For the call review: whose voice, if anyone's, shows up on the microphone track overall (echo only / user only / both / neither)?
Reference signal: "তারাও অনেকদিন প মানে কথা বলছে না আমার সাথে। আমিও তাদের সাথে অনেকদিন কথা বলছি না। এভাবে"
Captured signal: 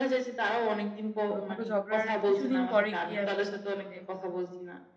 both